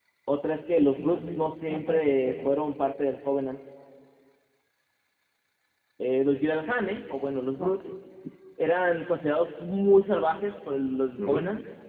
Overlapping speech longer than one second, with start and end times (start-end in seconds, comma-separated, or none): 0.8-2.6